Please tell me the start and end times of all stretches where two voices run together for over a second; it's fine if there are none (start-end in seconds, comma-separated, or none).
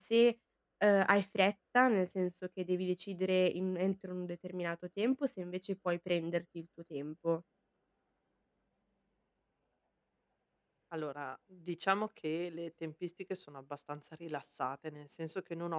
none